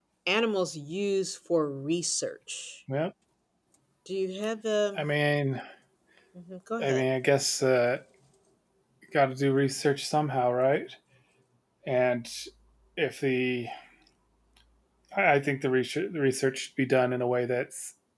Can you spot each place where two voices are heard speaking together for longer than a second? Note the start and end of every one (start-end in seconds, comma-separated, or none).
none